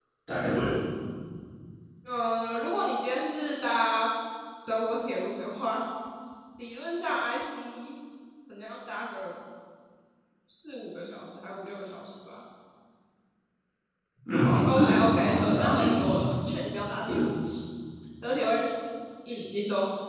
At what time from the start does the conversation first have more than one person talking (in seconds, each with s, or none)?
14.7 s